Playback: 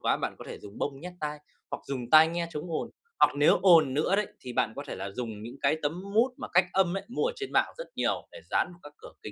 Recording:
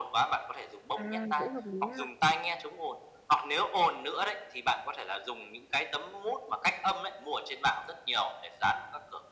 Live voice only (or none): À, cũng hợp lý ha.